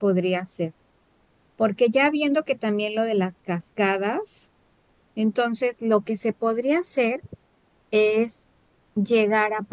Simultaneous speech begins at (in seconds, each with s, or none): none